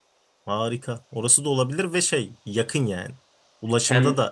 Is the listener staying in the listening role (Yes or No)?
Yes